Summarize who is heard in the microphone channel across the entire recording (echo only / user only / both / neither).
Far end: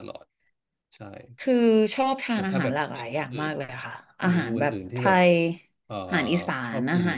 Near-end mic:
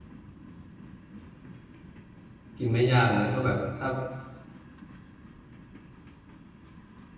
user only